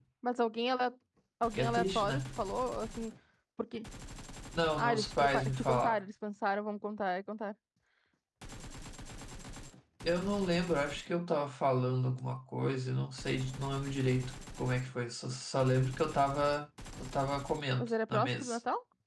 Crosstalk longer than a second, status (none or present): present